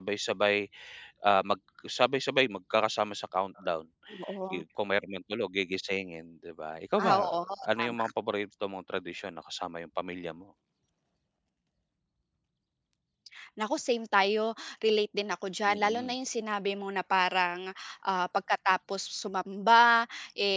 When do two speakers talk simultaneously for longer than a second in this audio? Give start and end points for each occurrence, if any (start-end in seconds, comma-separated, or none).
none